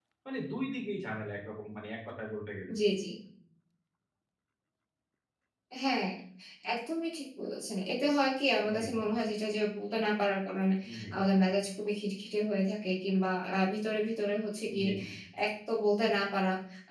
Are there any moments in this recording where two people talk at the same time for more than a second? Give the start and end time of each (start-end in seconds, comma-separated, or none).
none